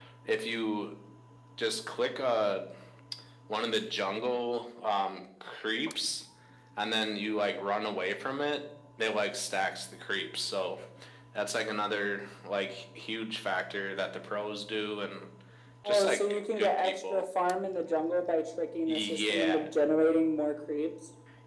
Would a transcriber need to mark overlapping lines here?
Yes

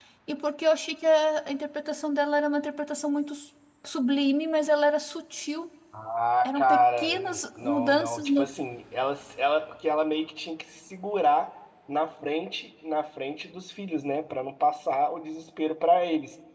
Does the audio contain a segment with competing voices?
Yes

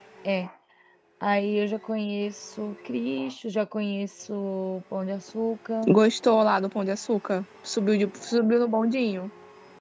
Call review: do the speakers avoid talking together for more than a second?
Yes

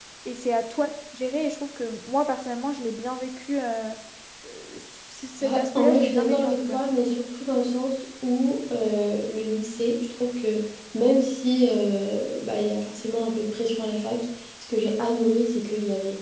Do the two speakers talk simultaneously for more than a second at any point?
Yes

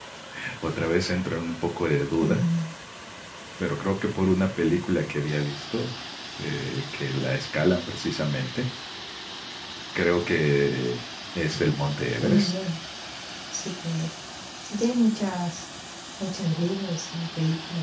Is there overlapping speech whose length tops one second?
No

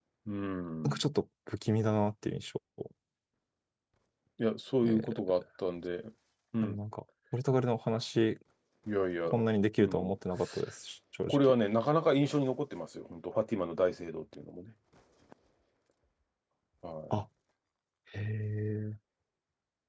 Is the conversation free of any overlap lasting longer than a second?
Yes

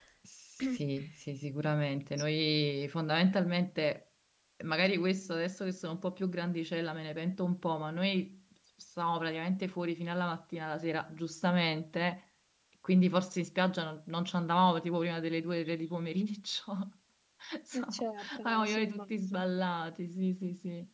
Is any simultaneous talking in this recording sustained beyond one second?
Yes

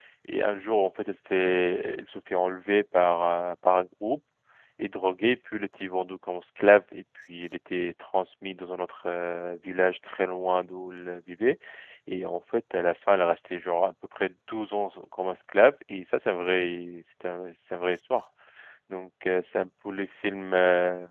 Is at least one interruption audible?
No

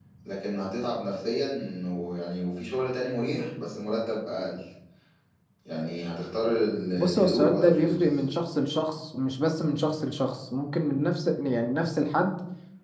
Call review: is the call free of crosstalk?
No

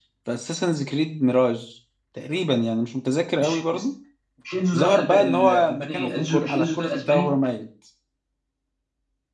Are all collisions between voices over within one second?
No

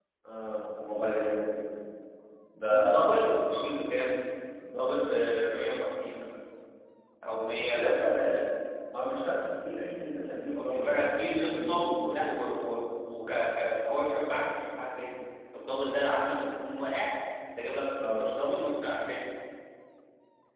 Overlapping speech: Yes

